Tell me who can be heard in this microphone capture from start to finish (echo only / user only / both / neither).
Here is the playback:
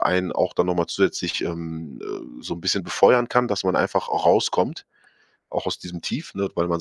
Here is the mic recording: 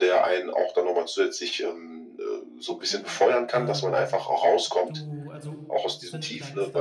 both